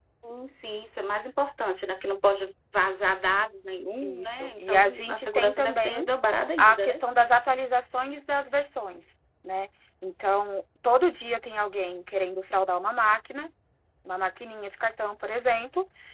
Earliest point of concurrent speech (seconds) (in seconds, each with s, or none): 4.0 s